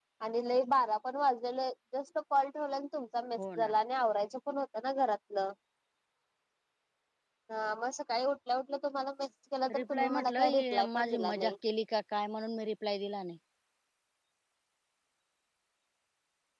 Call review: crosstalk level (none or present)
present